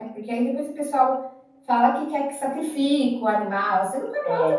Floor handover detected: No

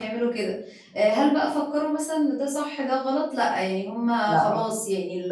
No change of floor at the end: Yes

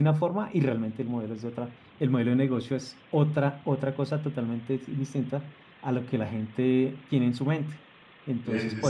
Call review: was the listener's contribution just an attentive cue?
Yes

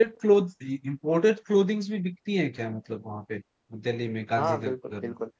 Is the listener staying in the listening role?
No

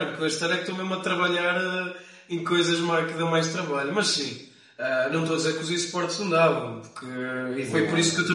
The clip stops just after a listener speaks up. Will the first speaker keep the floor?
Yes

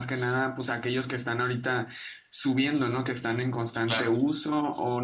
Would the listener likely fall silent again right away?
Yes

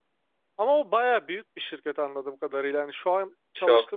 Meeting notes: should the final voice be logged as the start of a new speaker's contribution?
No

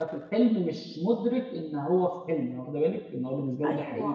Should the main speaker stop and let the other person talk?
Yes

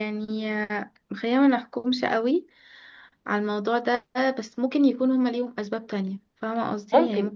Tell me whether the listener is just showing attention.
No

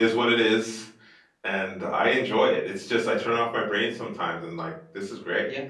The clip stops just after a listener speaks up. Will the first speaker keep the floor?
No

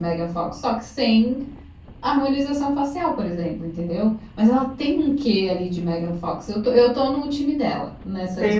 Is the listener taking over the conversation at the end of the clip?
Yes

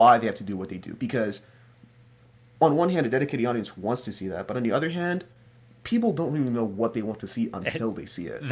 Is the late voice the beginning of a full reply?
Yes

